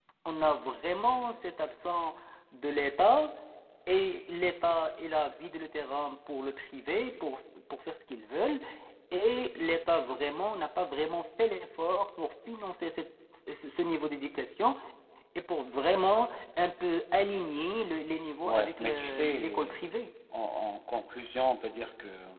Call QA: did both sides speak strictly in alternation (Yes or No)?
No